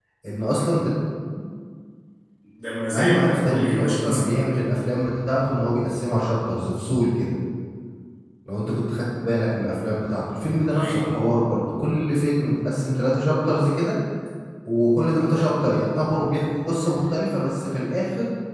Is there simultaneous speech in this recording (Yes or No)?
Yes